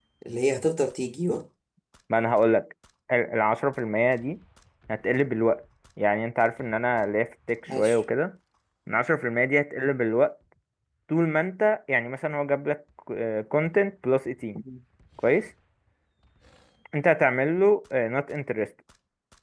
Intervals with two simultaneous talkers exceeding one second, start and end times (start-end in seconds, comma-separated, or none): none